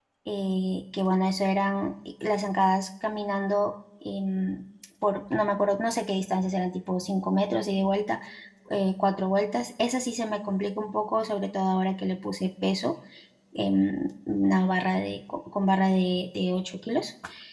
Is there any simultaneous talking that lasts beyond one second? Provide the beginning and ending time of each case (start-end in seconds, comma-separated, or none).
none